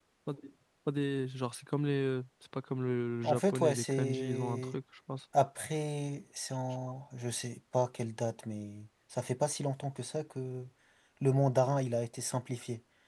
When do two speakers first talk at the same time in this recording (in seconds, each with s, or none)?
3.2 s